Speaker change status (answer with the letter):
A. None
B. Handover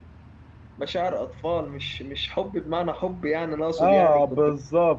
B